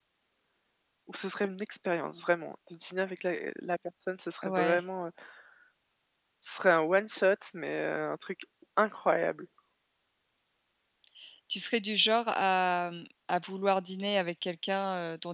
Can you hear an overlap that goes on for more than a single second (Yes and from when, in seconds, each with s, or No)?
No